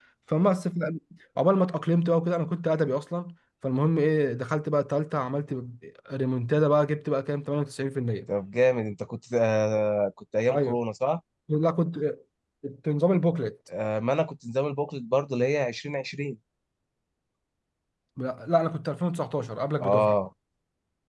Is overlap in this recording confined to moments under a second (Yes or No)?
Yes